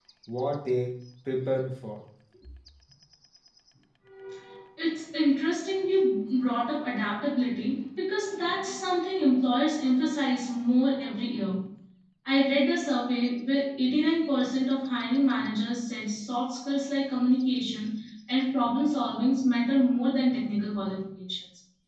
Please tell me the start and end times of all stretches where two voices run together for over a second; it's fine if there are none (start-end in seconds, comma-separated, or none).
none